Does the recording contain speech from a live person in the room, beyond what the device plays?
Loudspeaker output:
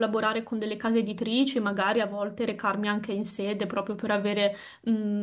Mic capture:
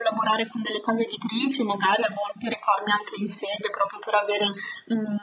No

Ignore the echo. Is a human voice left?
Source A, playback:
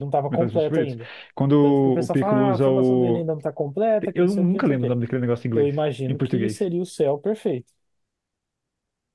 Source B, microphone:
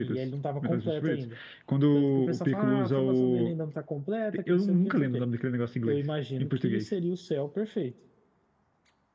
No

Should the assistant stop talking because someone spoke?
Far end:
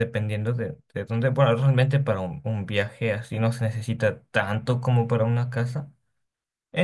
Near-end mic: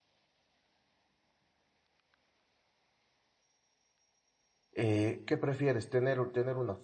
Yes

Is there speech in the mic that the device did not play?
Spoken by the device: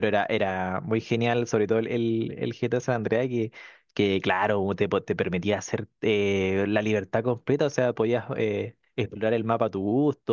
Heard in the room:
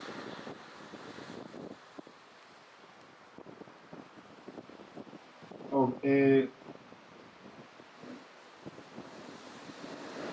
Yes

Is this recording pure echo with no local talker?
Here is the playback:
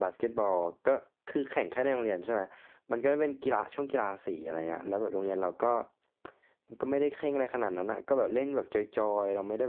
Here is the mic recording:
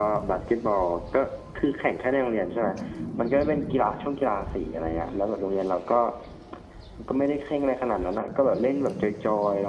Yes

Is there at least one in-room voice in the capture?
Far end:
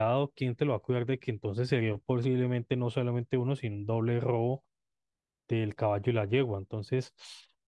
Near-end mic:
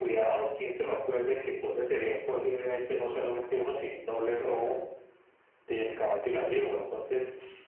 No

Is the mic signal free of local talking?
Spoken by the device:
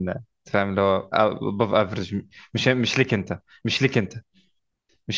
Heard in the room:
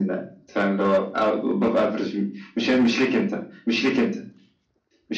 Yes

